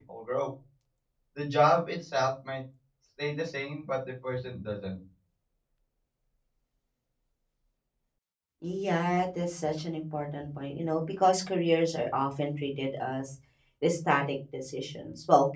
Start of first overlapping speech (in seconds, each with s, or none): none